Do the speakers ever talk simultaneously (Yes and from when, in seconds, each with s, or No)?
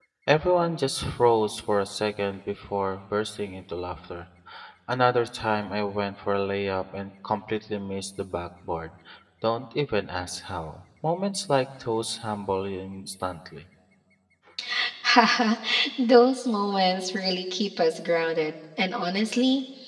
No